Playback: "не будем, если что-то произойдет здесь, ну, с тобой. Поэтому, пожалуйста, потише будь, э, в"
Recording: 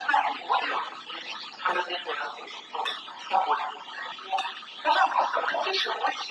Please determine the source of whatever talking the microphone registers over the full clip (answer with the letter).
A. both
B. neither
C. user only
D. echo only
D